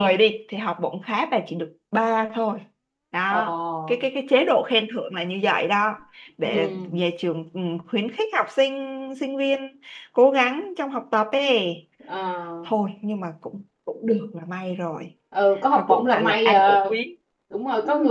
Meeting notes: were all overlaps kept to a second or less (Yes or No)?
No